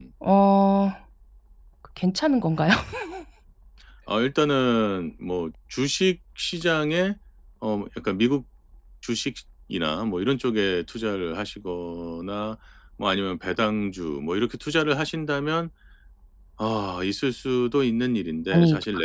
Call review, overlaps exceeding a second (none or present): none